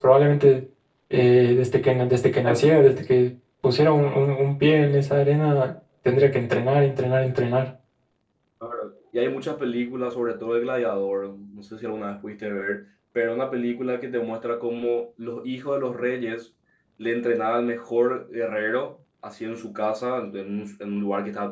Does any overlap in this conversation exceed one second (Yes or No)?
No